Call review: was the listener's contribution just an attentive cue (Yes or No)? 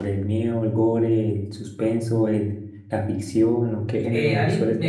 No